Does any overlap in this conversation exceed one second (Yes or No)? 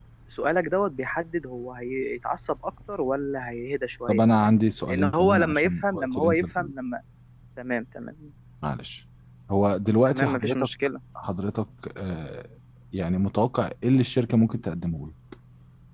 Yes